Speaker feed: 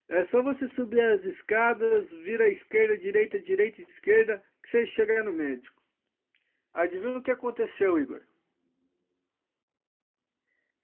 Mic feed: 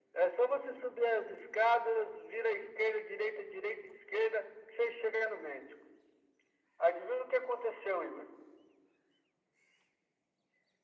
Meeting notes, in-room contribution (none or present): none